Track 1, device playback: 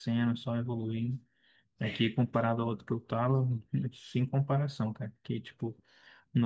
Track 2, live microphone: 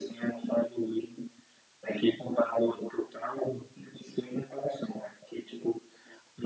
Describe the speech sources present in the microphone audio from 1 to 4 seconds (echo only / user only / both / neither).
echo only